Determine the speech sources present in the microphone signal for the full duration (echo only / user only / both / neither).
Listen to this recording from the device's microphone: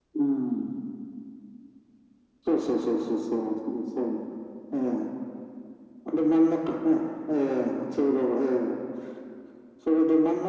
echo only